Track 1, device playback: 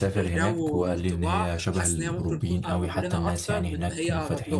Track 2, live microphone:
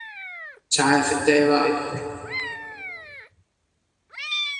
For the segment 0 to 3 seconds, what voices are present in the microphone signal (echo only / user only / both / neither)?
user only